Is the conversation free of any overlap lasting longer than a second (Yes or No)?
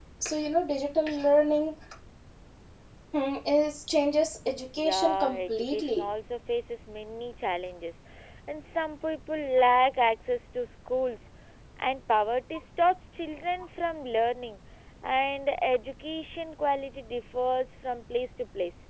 No